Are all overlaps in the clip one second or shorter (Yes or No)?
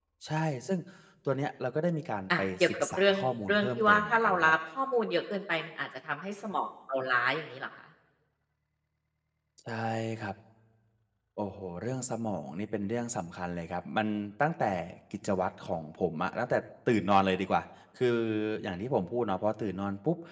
No